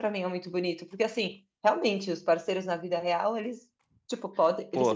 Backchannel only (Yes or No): Yes